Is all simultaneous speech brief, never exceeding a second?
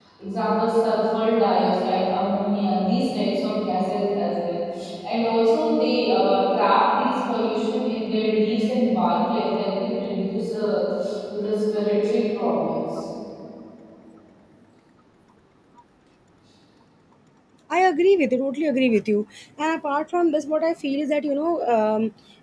Yes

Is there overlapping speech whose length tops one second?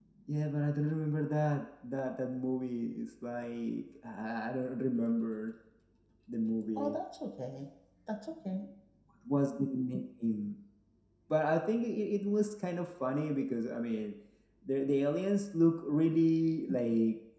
No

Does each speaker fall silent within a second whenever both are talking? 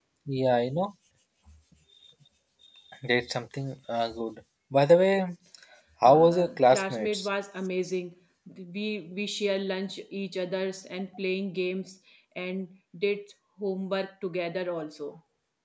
No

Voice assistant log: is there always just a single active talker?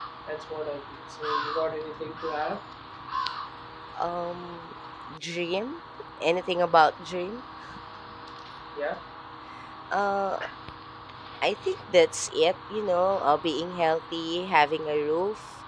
Yes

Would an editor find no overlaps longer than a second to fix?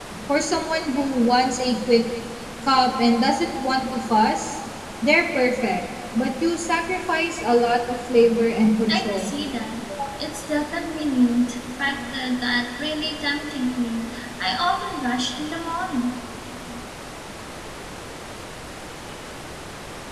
Yes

